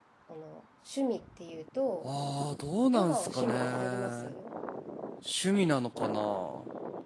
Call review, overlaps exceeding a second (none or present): present